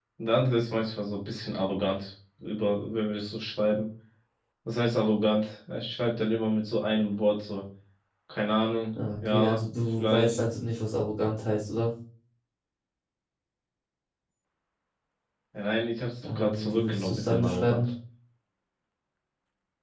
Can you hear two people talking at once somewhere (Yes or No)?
Yes